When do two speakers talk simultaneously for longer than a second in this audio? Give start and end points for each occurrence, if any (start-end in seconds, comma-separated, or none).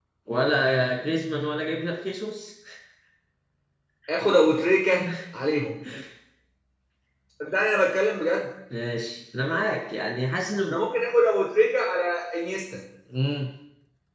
none